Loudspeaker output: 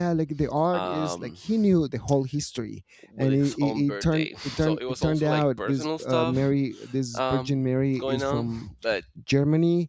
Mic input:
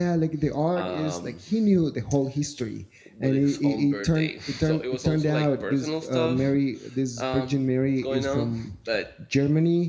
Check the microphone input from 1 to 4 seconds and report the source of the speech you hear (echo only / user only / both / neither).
echo only